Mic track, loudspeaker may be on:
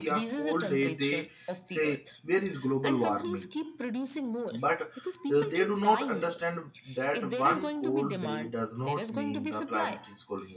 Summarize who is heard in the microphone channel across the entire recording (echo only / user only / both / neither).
both